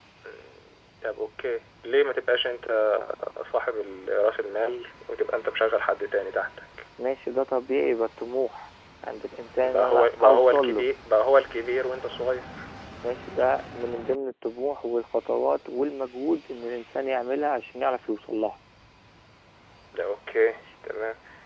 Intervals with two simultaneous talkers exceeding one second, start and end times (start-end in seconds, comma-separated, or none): 9.6-10.9